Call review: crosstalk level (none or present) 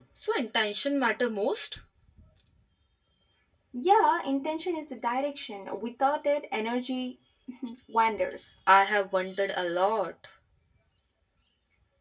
none